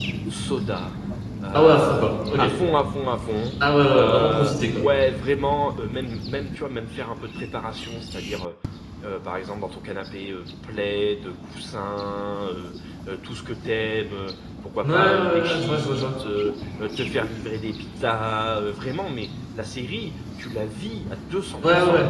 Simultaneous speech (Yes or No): Yes